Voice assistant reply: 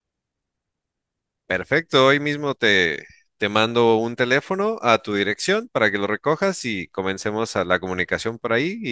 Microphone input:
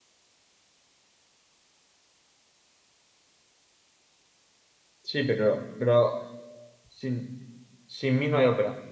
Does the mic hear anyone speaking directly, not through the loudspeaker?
Yes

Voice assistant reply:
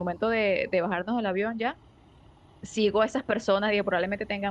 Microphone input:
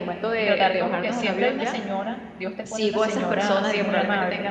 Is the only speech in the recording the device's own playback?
No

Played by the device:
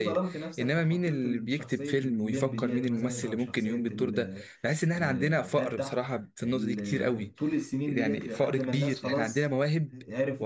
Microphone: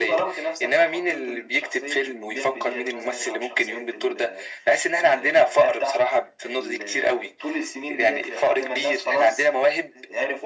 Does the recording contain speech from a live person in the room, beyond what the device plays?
No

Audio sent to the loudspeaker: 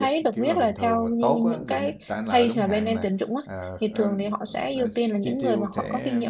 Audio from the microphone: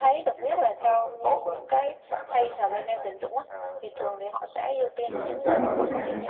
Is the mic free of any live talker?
No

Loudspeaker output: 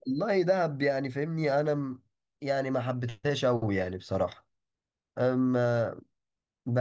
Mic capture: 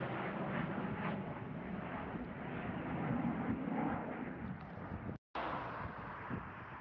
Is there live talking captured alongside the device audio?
No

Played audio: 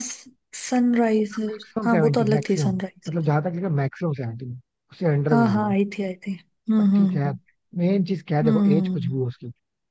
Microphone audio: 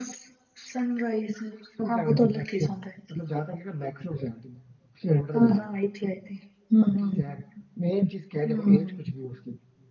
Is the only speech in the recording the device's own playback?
Yes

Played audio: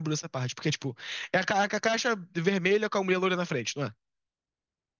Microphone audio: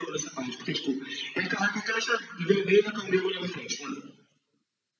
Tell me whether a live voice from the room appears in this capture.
No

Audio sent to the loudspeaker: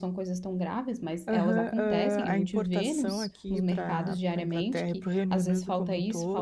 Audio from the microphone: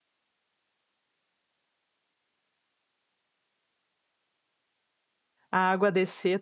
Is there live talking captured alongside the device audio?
Yes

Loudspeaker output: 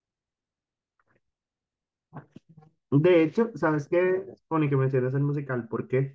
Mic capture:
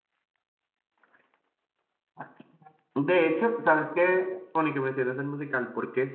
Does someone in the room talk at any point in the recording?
No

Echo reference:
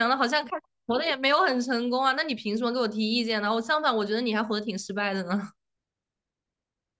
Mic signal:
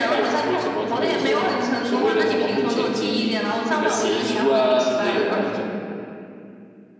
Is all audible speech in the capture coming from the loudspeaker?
No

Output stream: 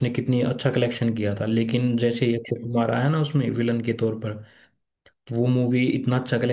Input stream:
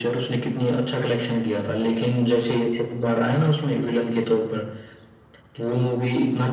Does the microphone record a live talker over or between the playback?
No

